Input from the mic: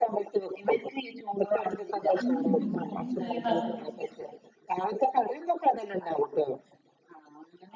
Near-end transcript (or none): ഉം ഉം അതൊന്നും ഇതുവരെ